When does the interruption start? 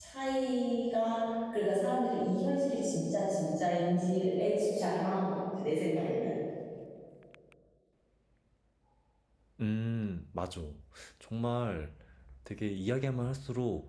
none

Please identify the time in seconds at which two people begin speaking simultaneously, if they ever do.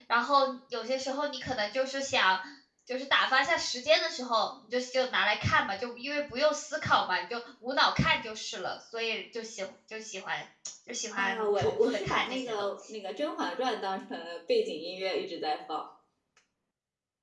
11.2 s

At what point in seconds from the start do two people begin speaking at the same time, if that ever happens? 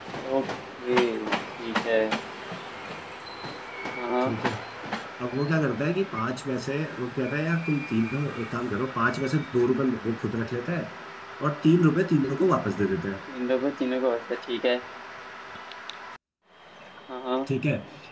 none

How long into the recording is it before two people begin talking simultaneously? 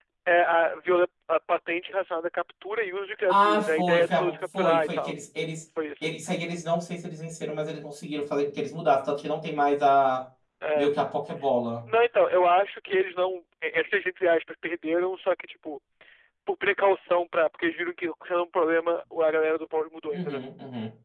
3.3 s

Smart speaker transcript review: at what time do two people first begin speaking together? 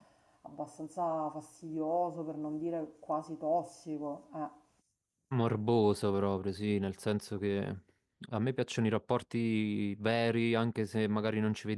none

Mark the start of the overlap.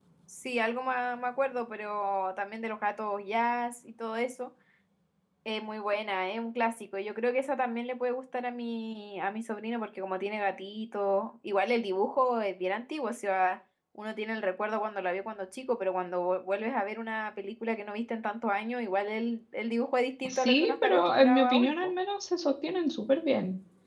20.2 s

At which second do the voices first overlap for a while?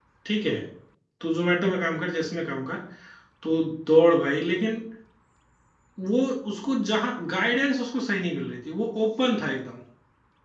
none

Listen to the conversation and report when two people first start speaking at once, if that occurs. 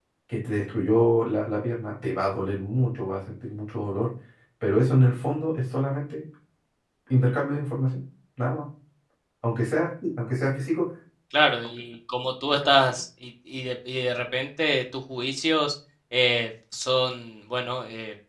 none

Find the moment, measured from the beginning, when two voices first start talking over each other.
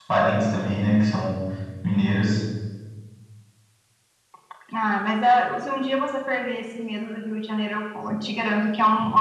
none

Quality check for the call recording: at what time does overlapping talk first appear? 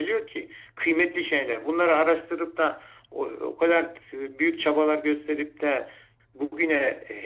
none

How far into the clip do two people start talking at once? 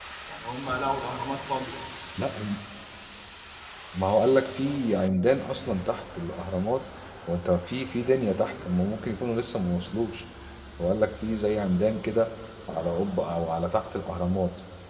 none

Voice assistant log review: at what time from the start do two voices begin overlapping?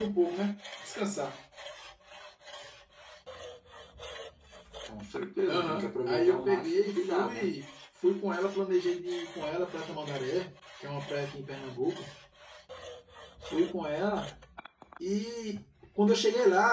5.5 s

